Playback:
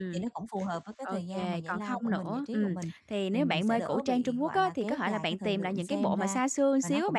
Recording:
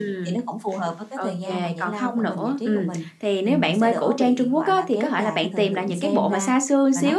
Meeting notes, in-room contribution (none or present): none